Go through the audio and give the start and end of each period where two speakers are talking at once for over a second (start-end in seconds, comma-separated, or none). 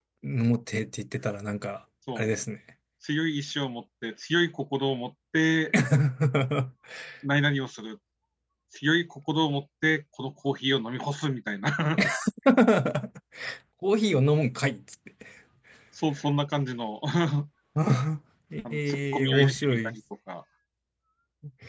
18.7-20.0